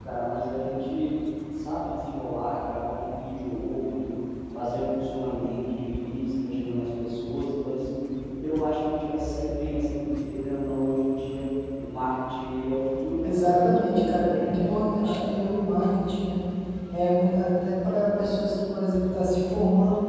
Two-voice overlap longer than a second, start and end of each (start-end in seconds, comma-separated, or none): 13.2-15.2